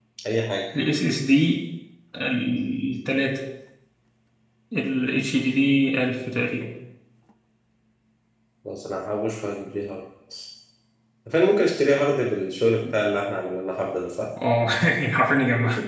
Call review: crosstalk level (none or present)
none